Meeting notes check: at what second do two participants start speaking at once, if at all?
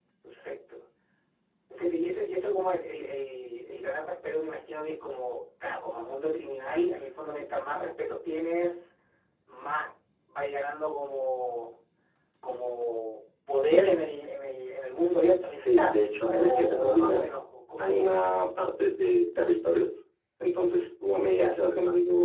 15.6 s

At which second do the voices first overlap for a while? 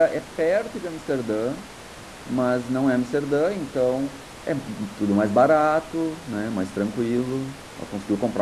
none

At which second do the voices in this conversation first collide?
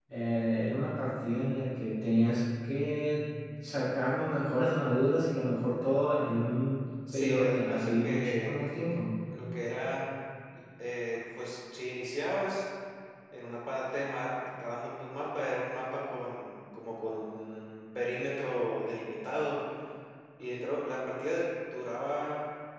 7.1 s

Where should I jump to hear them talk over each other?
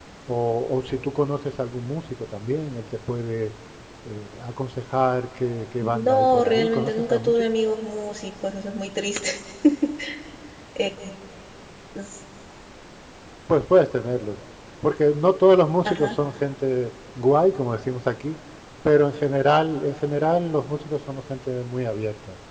5.8 s

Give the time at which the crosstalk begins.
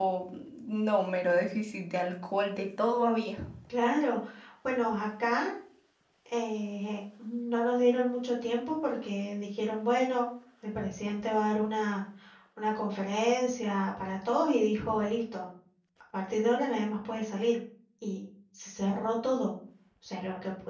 none

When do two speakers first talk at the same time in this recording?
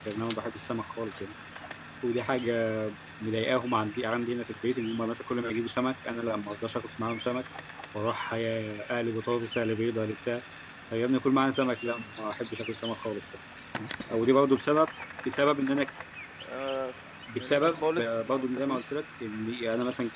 17.3 s

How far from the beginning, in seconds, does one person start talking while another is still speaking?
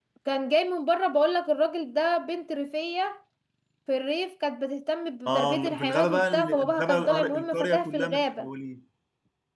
5.3 s

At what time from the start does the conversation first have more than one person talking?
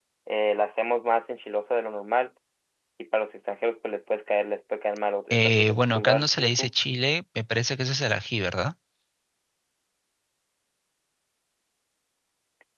5.3 s

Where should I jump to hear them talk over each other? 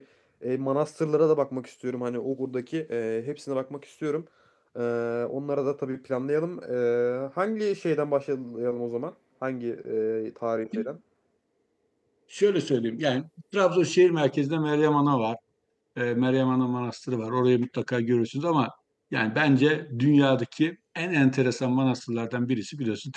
none

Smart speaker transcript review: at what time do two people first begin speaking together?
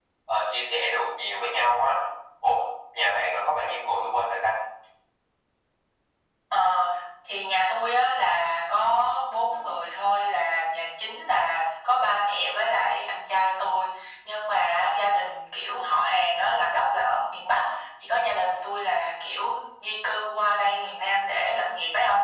none

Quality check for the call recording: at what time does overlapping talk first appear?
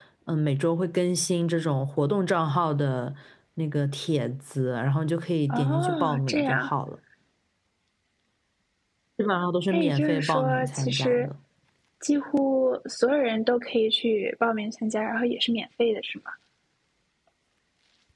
5.5 s

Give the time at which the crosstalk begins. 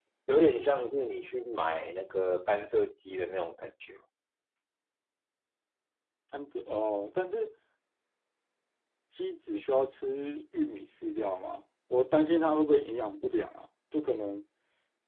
none

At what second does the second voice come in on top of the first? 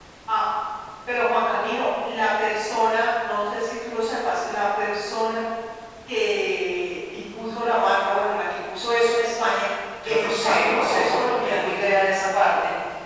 10.0 s

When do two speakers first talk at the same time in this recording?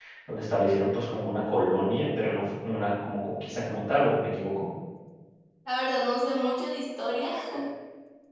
none

